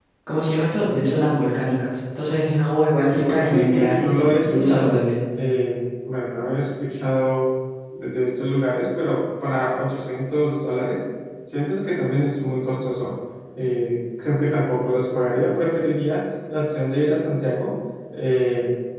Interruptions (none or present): present